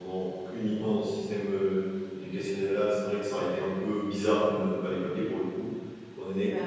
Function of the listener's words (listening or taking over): listening